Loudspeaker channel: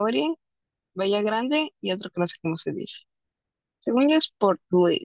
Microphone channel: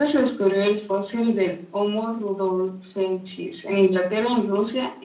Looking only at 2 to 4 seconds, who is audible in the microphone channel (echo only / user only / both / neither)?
user only